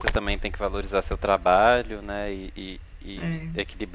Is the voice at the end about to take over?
No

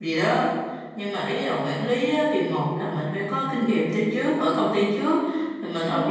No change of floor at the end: Yes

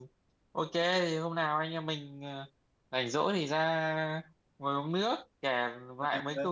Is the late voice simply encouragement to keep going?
Yes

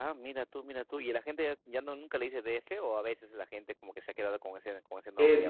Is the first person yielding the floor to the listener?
Yes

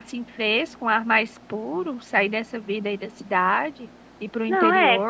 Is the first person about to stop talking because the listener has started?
Yes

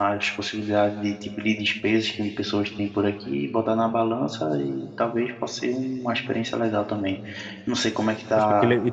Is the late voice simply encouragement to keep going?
No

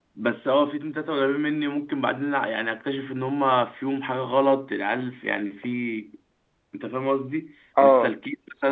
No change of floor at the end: Yes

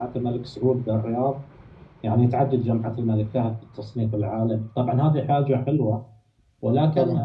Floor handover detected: No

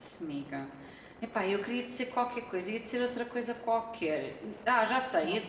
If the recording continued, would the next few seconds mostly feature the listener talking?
No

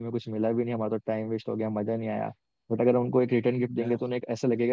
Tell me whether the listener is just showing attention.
Yes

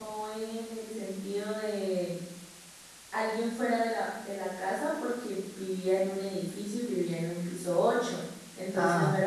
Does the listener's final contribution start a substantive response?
No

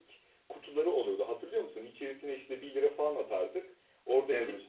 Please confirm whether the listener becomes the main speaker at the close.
No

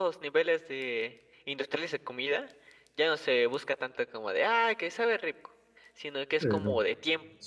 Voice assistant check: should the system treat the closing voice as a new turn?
No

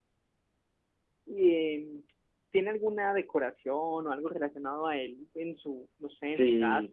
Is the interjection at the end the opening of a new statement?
Yes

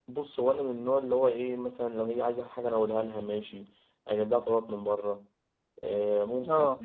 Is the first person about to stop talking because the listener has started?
No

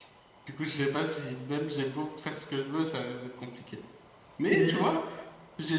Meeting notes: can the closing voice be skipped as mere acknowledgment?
Yes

